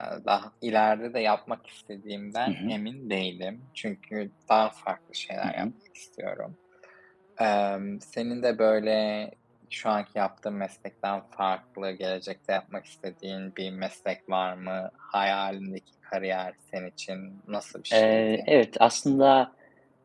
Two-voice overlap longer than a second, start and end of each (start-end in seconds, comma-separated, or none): none